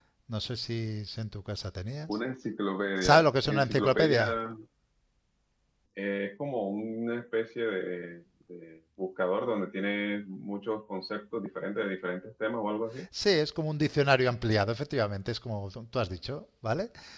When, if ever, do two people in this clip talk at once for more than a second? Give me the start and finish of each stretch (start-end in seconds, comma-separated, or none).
3.0-4.4